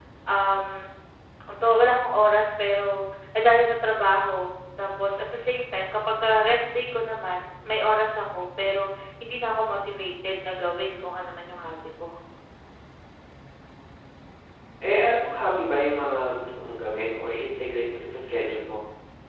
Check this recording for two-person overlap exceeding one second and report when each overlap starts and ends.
none

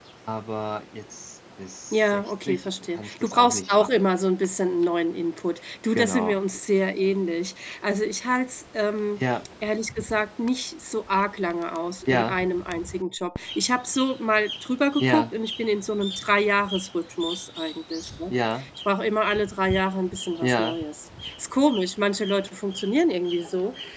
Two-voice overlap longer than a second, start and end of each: 1.9-4.0

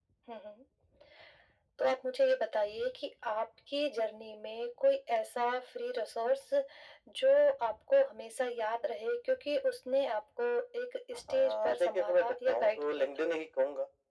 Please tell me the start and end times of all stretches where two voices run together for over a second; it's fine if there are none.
11.3-13.3

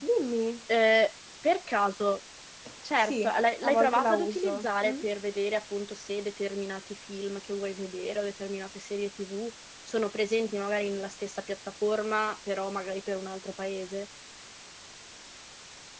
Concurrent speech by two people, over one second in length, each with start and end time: 3.6-5.1

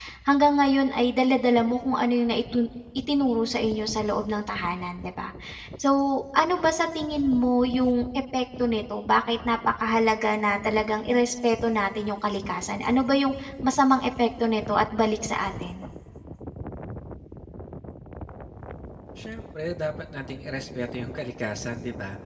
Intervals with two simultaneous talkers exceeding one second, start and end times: none

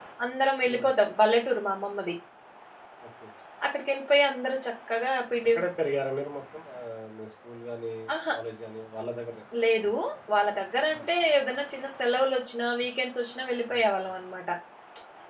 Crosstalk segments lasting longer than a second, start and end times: none

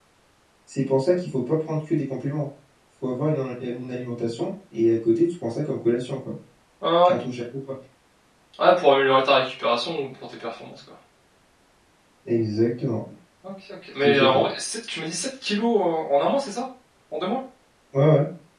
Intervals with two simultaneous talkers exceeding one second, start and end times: none

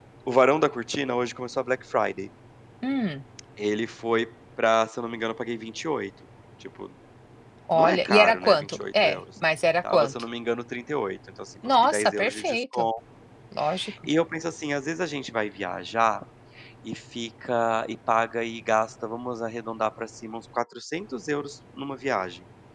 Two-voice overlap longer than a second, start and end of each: 7.7-9.2, 11.7-12.9

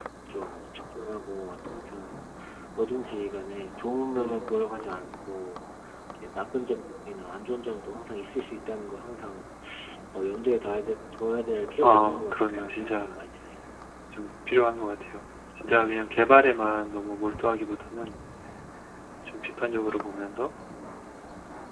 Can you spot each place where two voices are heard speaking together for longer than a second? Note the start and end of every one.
11.8-13.2

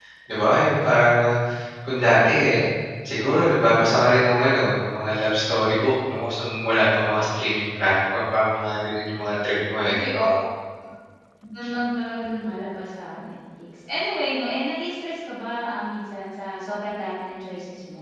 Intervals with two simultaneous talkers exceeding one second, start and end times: none

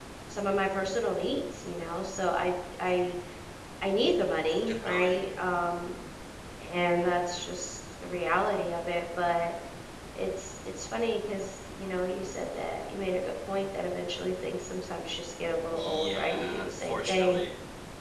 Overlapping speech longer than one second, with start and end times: 15.7-17.4

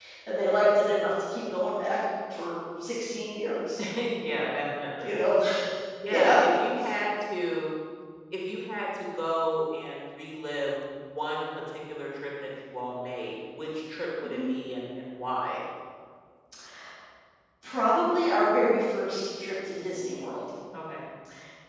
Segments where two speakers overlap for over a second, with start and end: none

